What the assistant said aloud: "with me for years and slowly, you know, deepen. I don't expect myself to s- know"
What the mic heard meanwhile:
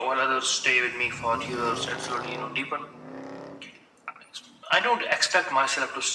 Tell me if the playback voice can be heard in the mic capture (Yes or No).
Yes